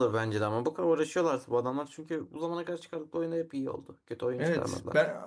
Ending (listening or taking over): taking over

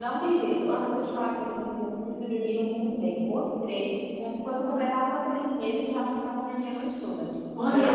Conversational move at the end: taking over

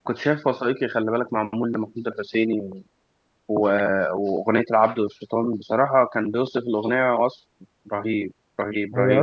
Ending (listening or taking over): taking over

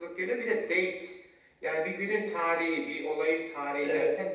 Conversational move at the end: listening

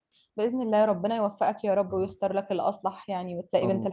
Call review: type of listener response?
taking over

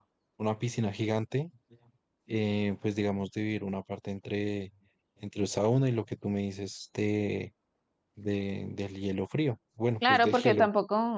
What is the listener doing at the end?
taking over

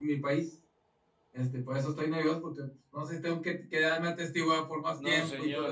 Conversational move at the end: taking over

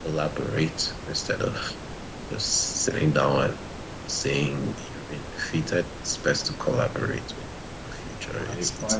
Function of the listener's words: taking over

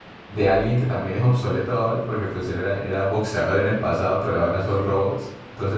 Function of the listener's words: listening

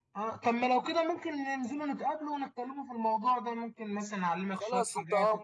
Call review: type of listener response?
taking over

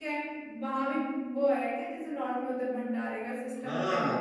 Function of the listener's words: taking over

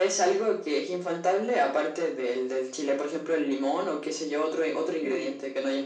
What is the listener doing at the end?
taking over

